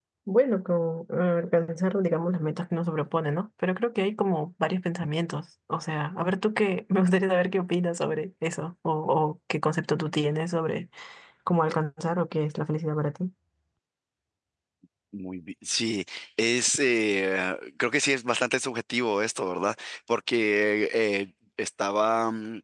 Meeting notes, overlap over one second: none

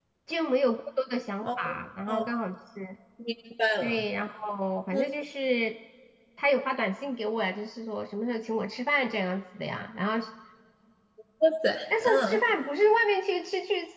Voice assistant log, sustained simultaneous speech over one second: none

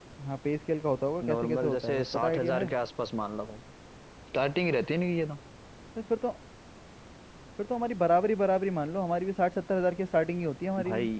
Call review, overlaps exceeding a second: present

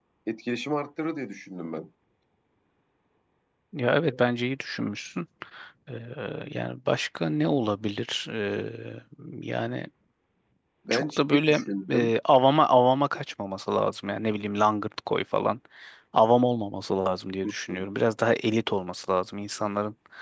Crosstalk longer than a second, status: present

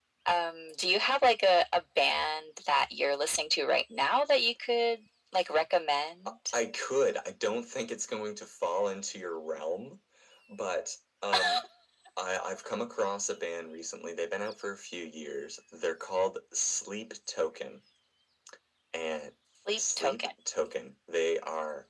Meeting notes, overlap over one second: none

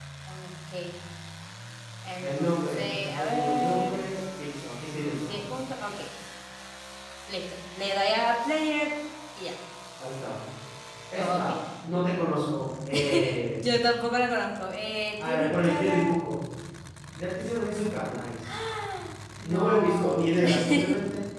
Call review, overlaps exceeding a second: present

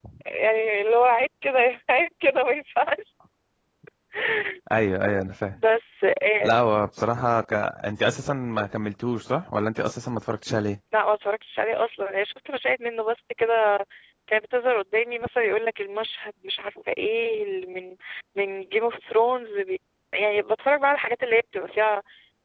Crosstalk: none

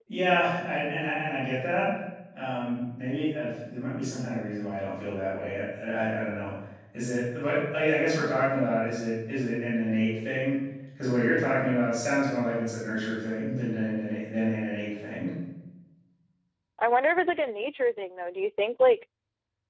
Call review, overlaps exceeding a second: none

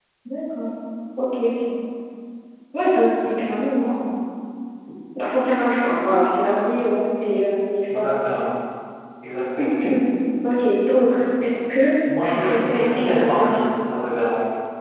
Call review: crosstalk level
present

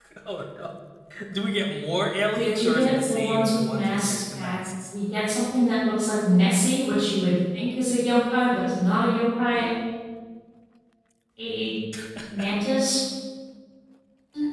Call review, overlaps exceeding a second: present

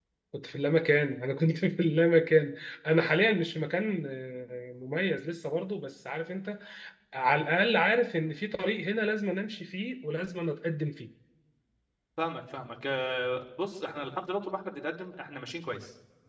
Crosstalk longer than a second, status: none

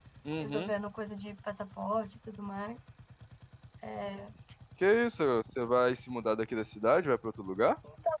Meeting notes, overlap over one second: none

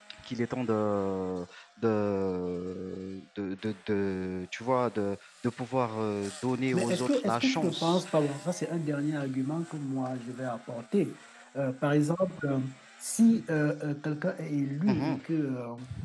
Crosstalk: present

